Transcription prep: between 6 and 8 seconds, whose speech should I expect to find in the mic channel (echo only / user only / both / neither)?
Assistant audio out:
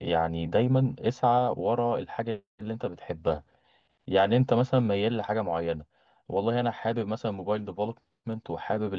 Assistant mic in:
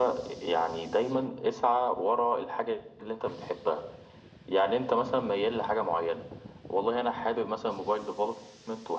echo only